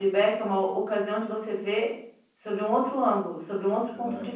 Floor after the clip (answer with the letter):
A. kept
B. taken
B